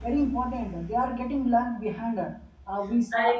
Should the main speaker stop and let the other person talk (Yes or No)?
No